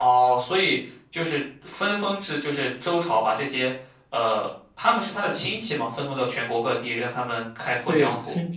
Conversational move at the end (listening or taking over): taking over